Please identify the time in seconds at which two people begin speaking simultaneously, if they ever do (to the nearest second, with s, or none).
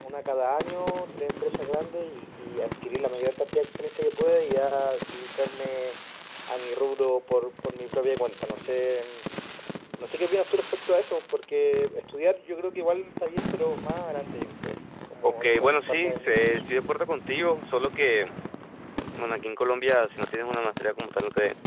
15 s